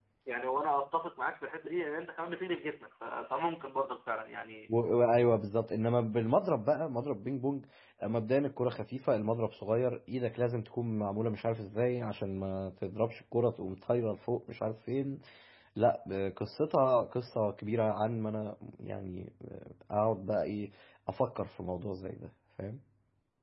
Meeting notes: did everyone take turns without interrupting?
Yes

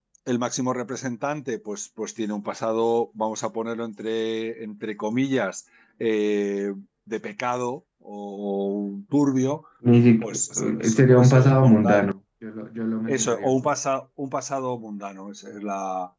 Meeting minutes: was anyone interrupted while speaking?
Yes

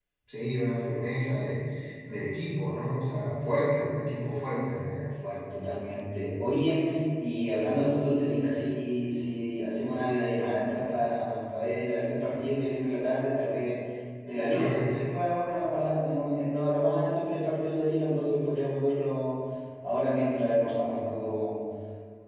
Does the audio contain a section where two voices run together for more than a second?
No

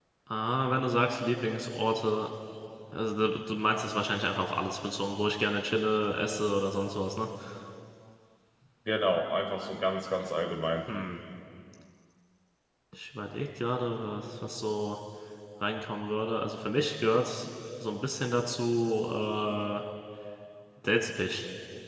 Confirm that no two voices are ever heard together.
Yes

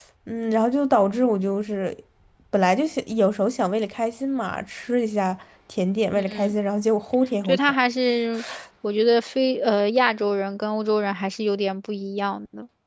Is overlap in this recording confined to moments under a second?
Yes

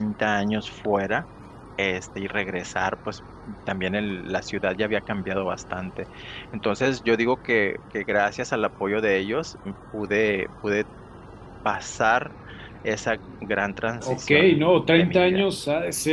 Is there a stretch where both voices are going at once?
Yes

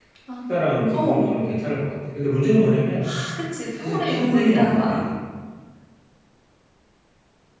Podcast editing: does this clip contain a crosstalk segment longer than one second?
Yes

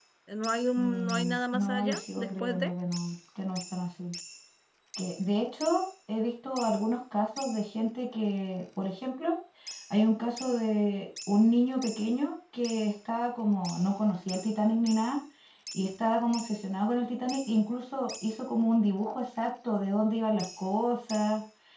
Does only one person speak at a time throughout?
No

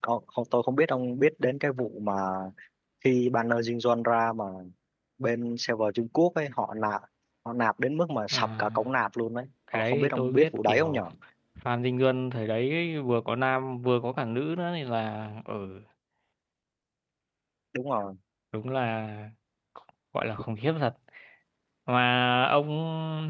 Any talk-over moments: Yes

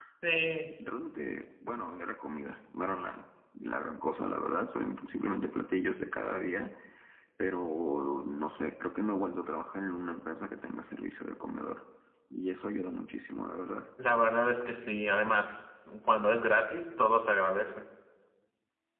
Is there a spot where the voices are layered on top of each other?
No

